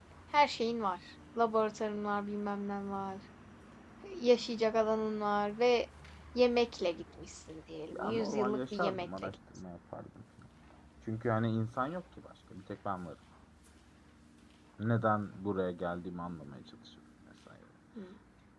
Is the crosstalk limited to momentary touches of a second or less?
No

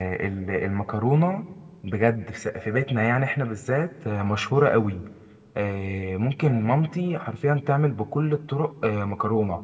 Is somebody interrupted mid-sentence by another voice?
No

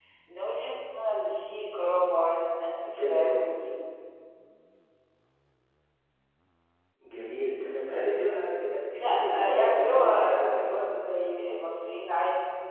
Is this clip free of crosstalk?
No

